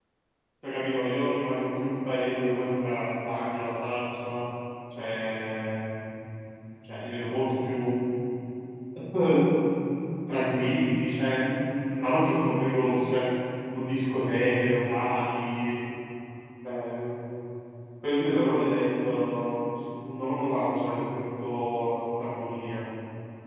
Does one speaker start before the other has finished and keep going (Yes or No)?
No